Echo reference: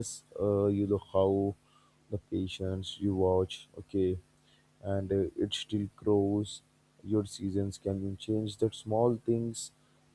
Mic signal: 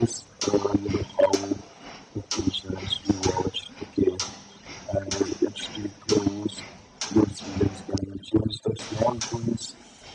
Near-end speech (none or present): none